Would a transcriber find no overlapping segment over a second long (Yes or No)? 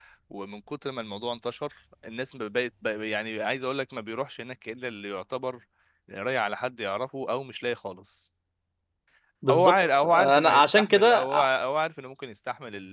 No